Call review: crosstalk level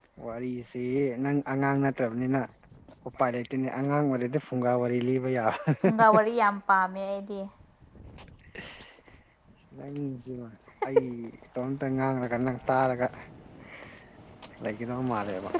none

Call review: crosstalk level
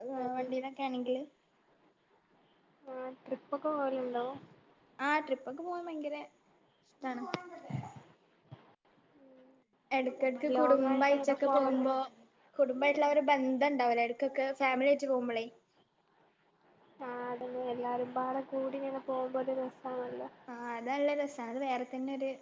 present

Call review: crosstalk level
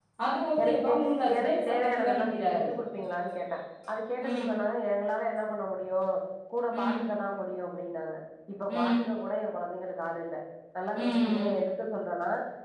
present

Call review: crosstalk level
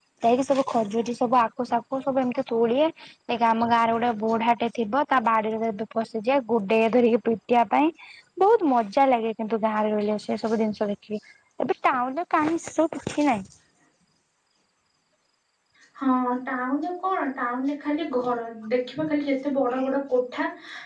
none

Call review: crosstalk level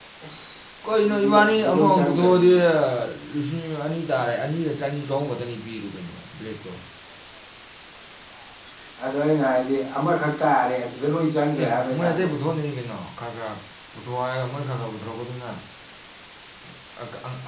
present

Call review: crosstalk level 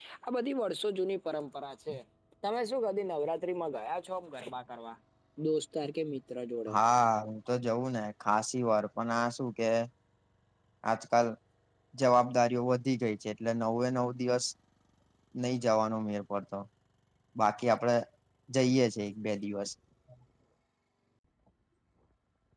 none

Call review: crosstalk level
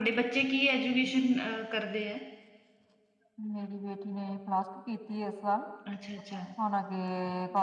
none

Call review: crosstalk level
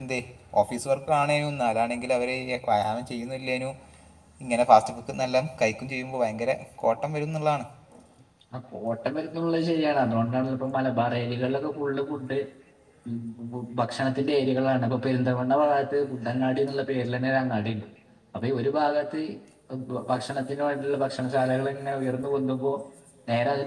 none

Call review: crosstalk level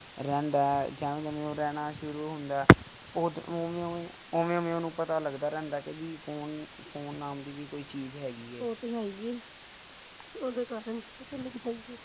none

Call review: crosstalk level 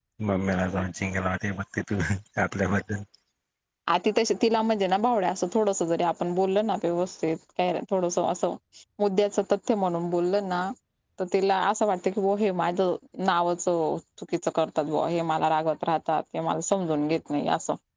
none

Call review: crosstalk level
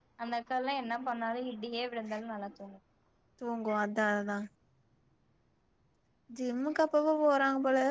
none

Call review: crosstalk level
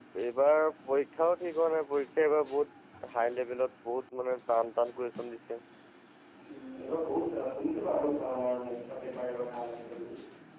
none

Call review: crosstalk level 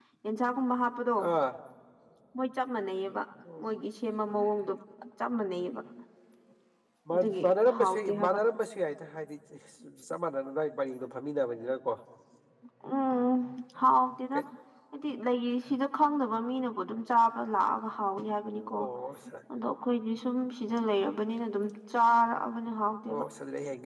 present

